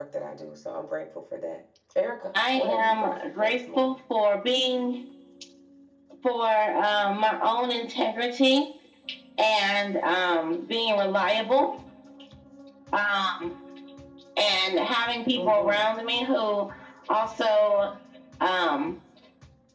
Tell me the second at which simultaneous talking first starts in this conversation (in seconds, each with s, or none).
2.6 s